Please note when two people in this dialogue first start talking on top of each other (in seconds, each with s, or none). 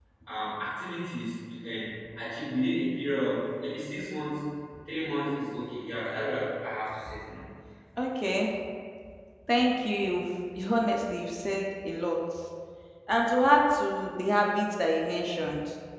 none